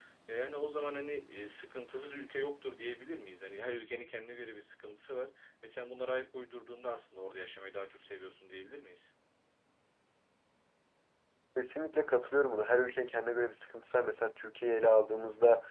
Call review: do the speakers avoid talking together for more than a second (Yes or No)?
Yes